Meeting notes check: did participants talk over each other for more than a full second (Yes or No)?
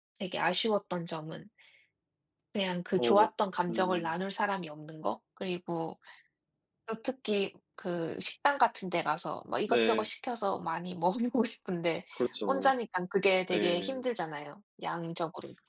No